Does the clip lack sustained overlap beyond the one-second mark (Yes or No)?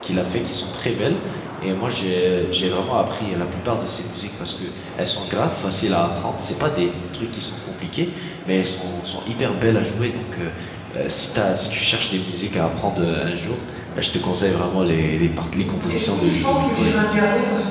No